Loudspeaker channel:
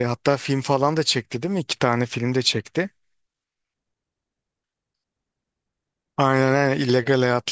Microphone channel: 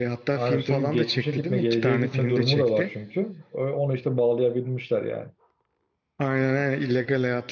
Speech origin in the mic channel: both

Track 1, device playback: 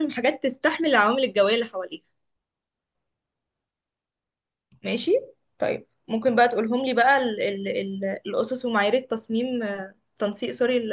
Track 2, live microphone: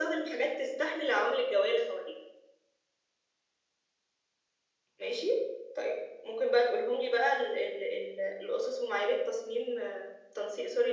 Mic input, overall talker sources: echo only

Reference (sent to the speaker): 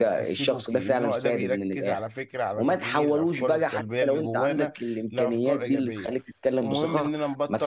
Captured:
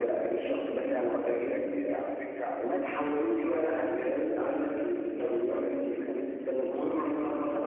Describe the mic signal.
echo only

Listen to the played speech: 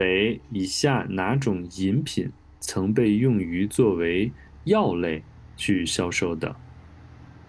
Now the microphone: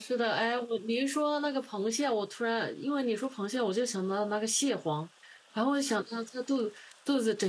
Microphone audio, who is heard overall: user only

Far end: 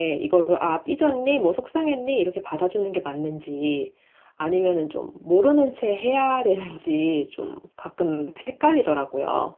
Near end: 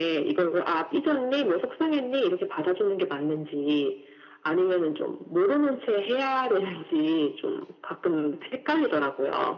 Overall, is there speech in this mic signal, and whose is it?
echo only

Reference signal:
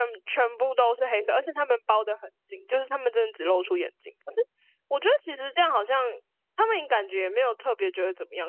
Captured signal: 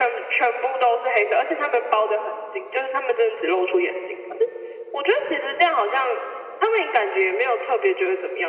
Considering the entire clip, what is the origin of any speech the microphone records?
echo only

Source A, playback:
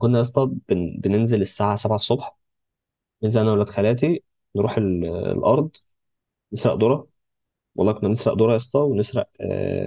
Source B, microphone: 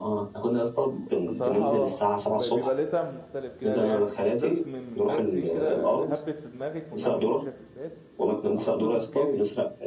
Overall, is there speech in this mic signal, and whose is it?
both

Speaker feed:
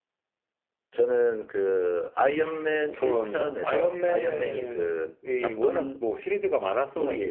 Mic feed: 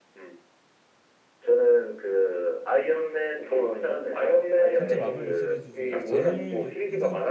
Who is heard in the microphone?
both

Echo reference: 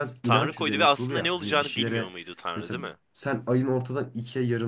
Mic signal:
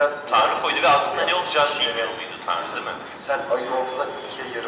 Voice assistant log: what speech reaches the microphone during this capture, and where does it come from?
echo only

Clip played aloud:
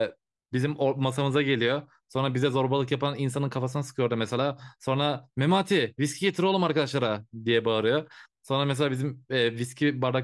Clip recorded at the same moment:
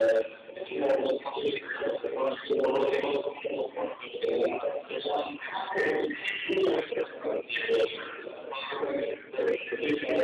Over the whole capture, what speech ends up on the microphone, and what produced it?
echo only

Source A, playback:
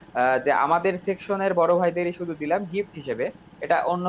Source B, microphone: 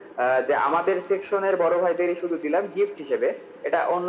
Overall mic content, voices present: echo only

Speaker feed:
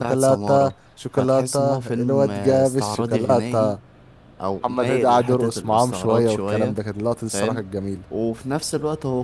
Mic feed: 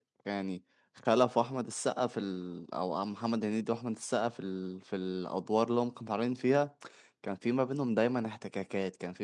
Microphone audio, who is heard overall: user only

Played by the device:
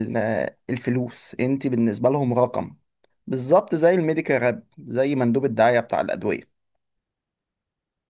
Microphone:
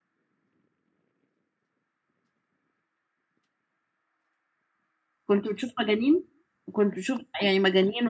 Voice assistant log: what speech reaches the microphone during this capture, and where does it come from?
user only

